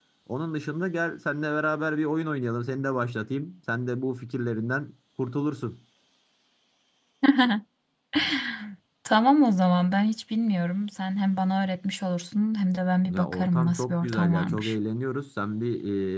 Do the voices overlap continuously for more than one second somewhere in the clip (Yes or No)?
Yes